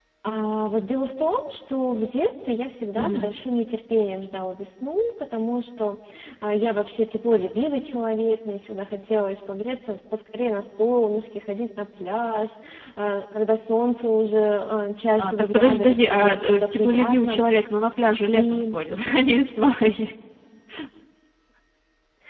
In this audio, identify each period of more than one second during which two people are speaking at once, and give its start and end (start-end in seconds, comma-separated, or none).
15.2-17.4